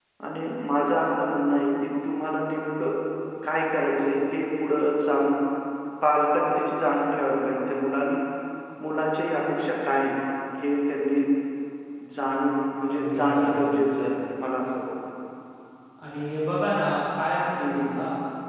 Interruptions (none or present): present